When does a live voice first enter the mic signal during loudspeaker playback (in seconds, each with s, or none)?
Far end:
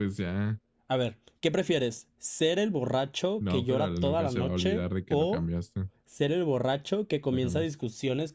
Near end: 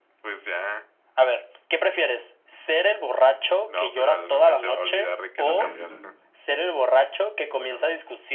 5.4 s